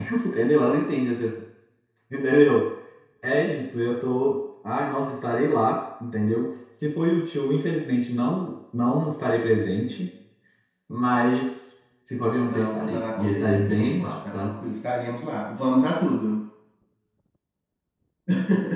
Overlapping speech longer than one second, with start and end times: 12.5-14.5

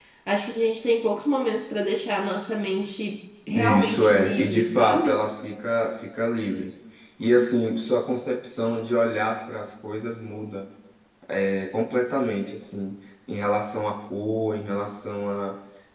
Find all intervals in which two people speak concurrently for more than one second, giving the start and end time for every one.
3.5-5.2

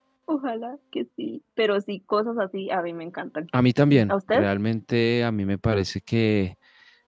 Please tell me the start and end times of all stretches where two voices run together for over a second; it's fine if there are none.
none

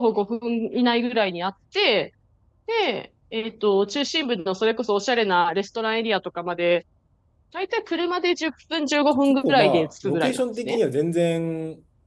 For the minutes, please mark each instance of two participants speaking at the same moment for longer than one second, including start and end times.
9.2-10.8

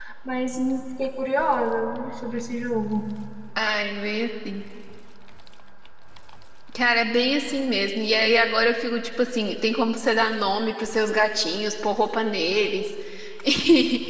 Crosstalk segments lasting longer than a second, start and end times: none

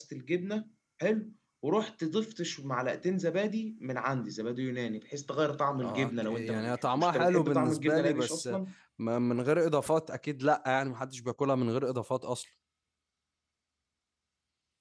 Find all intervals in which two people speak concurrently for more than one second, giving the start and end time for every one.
5.8-8.5

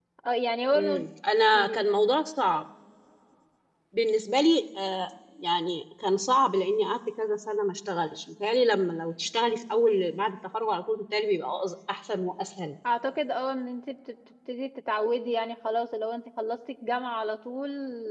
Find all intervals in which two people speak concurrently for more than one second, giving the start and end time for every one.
none

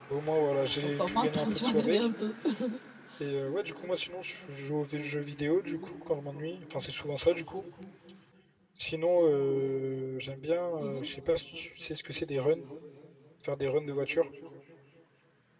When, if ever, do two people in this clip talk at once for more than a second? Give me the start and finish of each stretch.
0.8-2.1

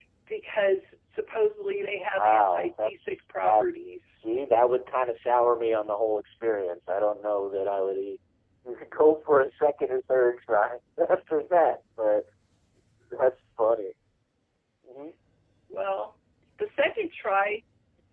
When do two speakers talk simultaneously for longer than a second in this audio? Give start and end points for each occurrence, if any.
2.2-3.6

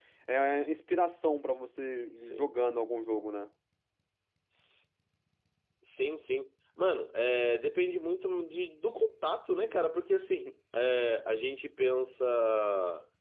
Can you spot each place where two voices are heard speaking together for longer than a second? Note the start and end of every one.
none

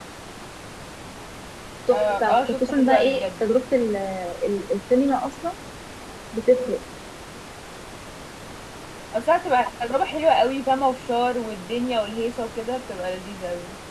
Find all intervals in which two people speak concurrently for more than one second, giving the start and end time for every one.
1.9-3.3

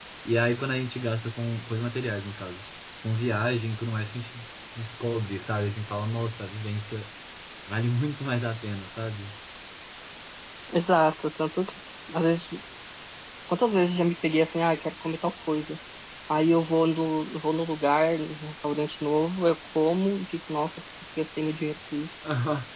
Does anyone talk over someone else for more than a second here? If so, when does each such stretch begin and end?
none

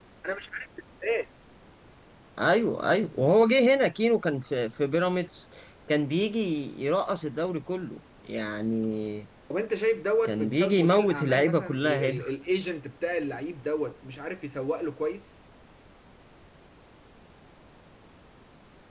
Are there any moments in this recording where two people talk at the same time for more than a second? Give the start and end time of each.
10.2-12.2

